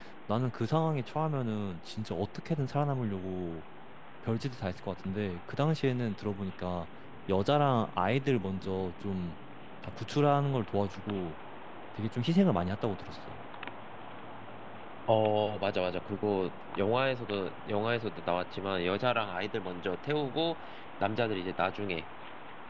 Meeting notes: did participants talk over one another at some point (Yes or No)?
No